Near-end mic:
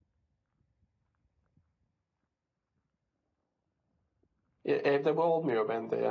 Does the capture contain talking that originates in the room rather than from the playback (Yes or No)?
Yes